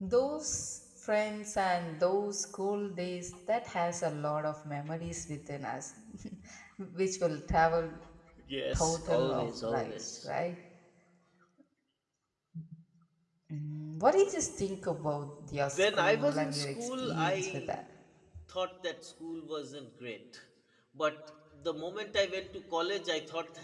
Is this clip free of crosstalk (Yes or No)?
No